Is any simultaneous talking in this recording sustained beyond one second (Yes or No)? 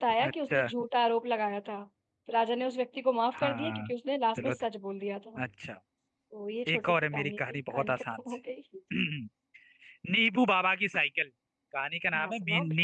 Yes